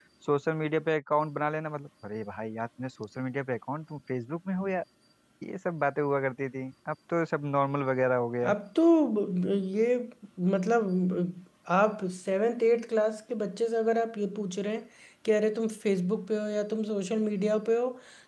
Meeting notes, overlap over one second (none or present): none